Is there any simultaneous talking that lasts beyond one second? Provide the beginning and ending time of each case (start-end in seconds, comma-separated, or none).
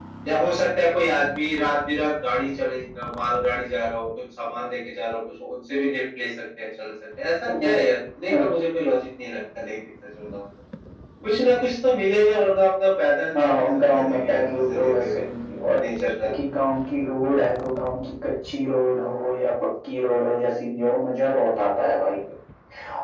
13.3-15.2